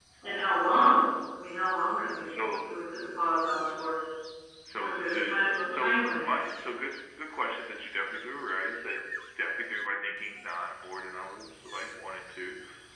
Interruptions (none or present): present